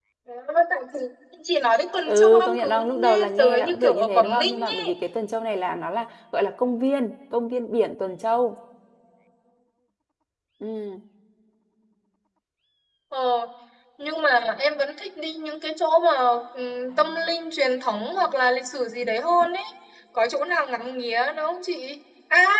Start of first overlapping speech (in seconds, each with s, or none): 2.1 s